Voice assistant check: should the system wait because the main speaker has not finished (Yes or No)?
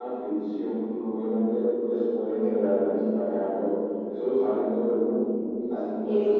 No